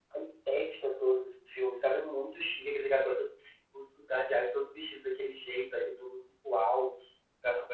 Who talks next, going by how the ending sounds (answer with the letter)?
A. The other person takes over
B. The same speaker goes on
B